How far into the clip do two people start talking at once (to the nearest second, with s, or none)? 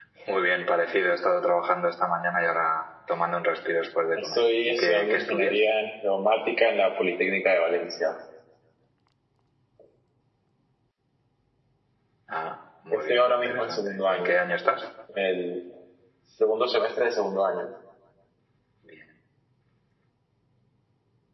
4 s